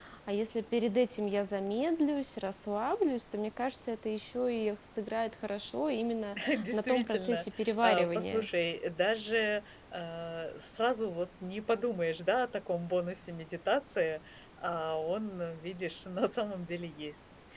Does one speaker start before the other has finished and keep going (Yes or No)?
Yes